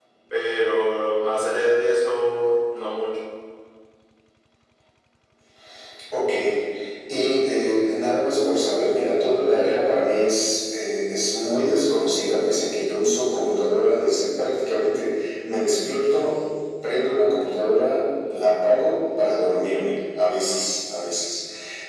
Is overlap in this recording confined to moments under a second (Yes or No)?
Yes